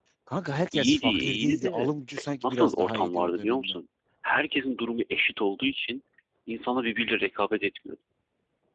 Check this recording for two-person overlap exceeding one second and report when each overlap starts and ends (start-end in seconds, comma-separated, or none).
0.7-1.9, 2.4-3.7